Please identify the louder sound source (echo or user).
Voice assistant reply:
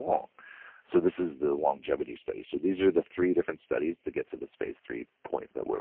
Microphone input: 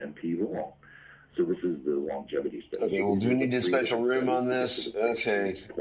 user